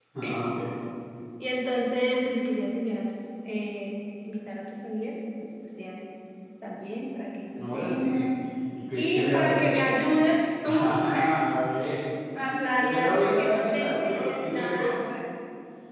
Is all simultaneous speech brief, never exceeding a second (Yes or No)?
No